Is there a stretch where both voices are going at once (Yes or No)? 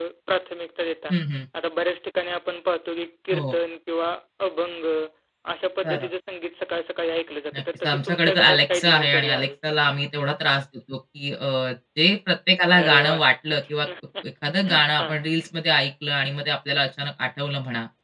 Yes